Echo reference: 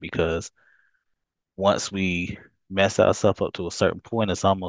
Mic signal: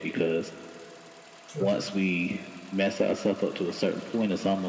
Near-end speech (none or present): present